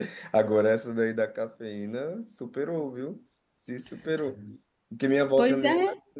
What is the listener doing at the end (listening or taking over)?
listening